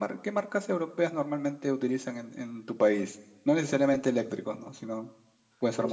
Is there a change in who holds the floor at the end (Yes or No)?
Yes